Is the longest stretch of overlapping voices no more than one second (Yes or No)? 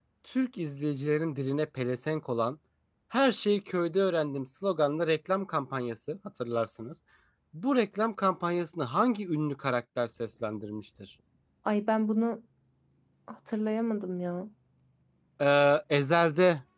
Yes